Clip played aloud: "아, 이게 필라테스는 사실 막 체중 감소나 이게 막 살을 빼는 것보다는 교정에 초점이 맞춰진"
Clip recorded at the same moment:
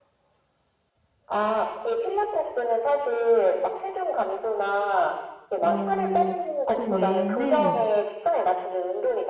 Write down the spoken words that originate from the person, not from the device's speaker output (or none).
어, 그 외에는,